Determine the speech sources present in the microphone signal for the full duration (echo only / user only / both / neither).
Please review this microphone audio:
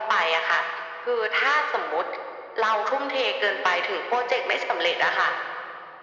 echo only